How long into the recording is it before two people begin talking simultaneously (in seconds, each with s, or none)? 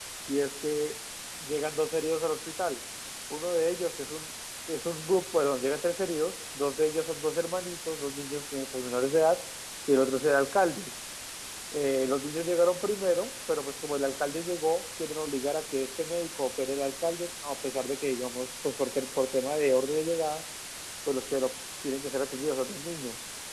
none